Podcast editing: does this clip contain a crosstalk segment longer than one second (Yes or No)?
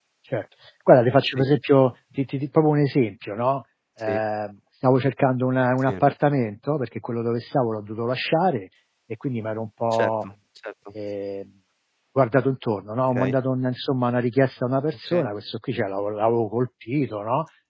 No